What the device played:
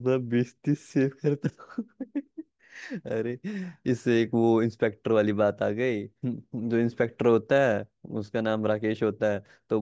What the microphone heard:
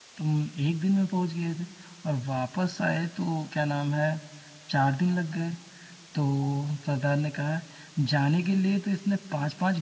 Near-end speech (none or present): present